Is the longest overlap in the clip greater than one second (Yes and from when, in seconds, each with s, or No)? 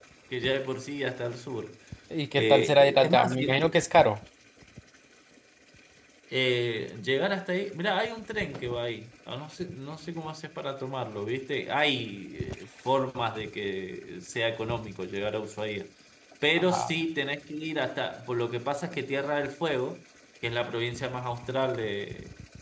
Yes, from 2.4 s